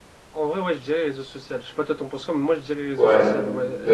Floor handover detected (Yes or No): Yes